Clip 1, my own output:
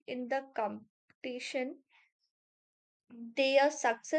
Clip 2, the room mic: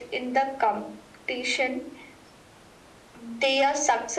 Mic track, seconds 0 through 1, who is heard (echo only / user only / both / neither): echo only